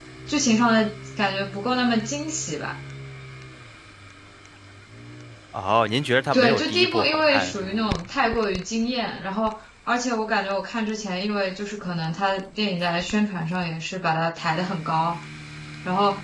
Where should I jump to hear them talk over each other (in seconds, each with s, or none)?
6.3 s